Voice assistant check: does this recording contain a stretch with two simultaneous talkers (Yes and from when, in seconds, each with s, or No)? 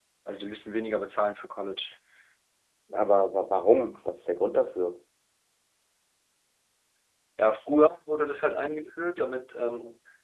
No